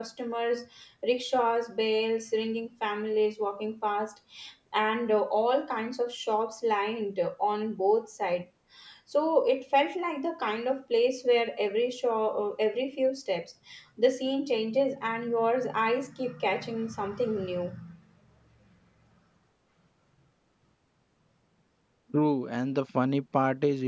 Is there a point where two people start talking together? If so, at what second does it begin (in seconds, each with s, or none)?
none